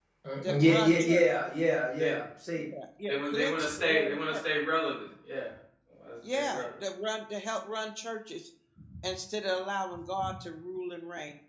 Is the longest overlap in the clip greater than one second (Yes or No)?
Yes